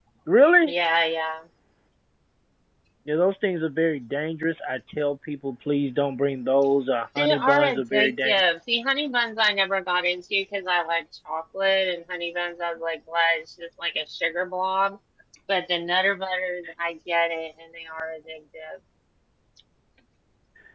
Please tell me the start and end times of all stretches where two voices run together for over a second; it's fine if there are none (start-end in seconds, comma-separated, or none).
7.2-8.4